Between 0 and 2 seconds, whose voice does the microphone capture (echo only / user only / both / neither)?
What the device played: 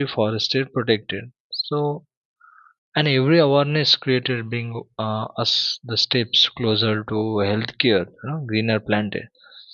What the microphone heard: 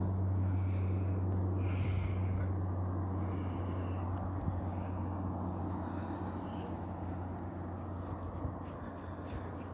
neither